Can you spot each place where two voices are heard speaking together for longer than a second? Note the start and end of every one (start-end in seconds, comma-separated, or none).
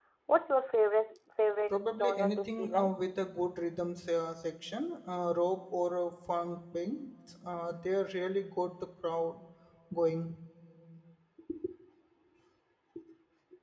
1.7-2.9